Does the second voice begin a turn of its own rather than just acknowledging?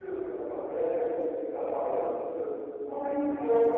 No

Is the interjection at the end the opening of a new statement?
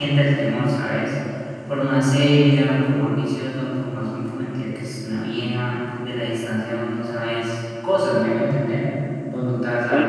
Yes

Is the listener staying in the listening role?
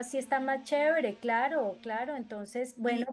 No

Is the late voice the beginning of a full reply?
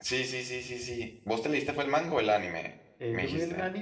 Yes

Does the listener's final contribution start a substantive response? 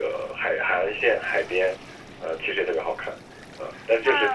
Yes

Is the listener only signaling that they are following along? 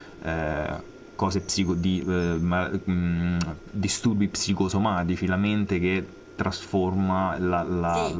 No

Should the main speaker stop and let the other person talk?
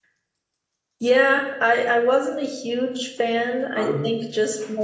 No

